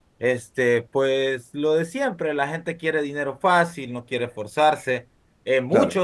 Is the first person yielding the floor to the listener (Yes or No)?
No